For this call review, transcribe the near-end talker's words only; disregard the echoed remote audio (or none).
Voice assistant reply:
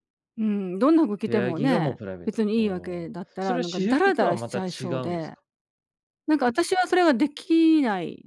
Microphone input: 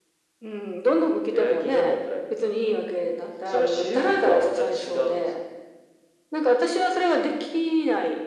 none